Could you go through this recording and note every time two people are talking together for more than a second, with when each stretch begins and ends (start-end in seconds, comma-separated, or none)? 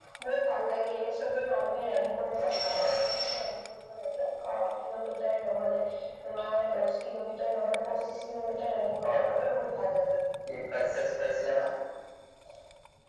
none